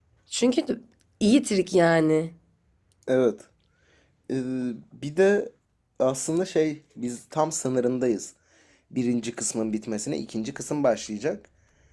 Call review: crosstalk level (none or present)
none